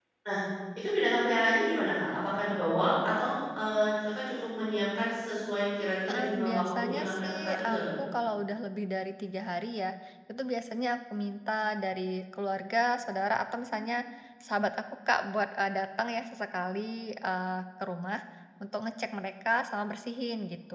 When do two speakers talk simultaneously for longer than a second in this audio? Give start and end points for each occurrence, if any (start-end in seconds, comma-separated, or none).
6.1-7.8